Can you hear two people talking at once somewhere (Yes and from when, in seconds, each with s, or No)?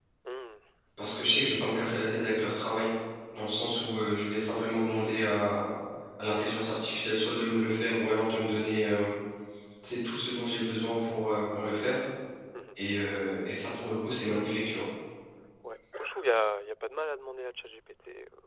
No